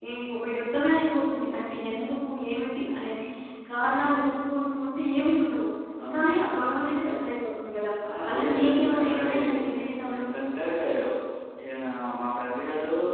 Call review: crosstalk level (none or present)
present